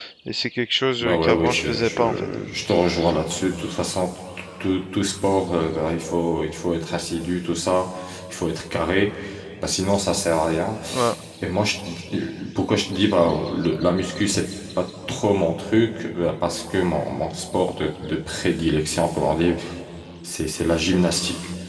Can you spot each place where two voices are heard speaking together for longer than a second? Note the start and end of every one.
1.0-2.3

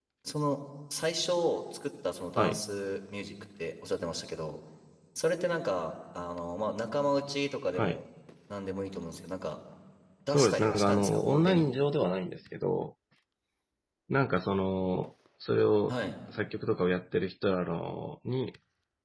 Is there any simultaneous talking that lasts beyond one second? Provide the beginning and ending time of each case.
10.3-11.7

